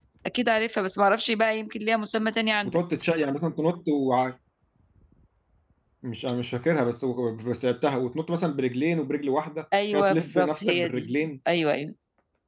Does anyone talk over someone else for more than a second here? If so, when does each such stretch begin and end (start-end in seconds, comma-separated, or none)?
9.9-11.1